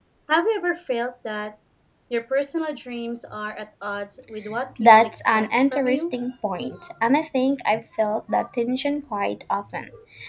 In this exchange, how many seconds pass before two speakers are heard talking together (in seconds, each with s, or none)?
4.8 s